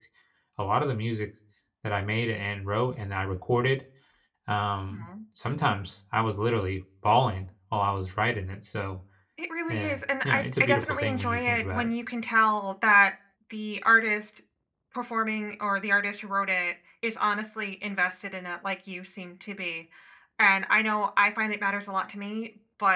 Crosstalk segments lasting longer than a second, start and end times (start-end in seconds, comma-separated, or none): 9.7-11.9